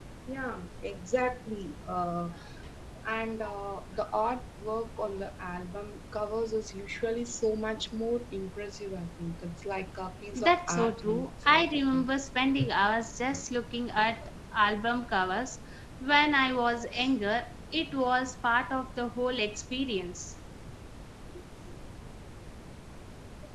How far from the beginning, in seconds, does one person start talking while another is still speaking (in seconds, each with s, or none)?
10.3 s